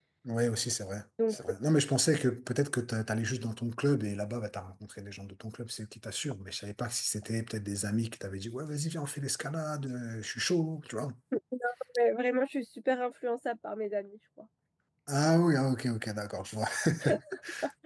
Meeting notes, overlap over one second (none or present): none